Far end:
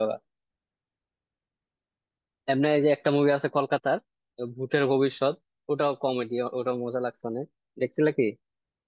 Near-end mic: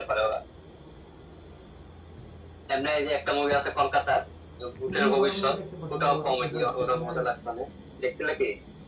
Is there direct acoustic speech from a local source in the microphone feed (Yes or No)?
Yes